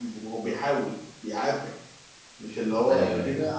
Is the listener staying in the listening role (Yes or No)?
Yes